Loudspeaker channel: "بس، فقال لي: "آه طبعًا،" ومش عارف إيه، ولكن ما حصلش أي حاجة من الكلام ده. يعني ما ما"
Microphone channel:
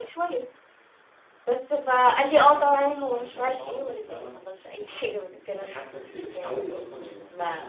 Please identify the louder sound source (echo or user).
echo